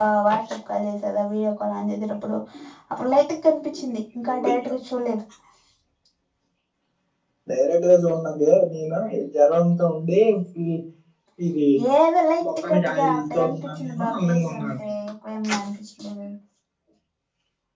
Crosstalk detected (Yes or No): Yes